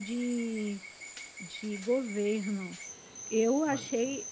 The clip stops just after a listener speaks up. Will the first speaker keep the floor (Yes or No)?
Yes